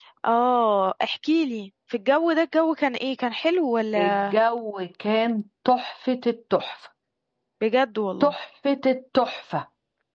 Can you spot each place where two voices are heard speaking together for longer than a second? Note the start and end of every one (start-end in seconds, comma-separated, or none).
none